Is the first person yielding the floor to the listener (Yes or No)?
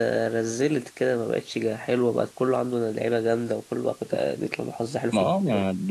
Yes